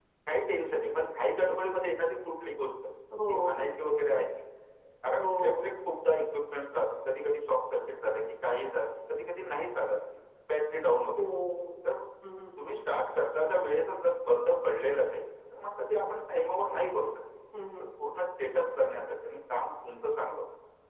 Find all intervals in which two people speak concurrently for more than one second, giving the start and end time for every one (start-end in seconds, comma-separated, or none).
none